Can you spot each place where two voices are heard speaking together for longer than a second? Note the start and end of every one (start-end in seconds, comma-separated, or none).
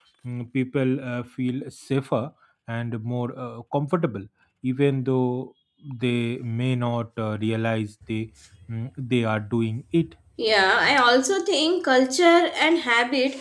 none